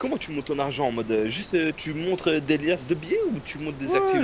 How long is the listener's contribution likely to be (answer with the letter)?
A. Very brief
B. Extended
B